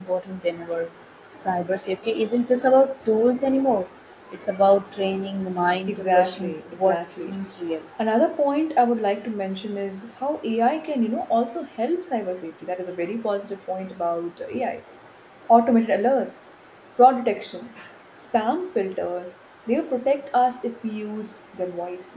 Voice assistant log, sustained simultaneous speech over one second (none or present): present